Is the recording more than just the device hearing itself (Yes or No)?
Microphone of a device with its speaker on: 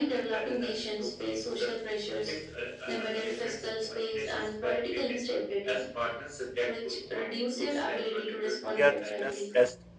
Yes